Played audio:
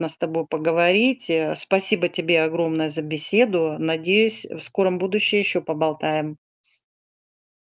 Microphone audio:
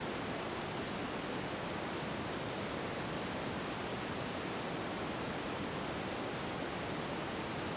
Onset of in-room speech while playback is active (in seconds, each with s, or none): none